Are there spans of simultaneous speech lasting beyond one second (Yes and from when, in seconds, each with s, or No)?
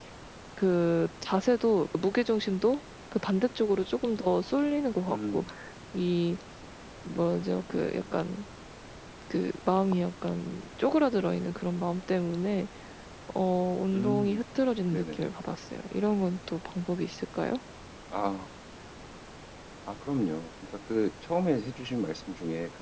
No